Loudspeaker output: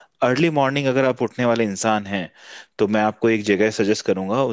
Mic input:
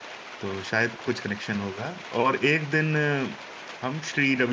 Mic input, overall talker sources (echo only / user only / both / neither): user only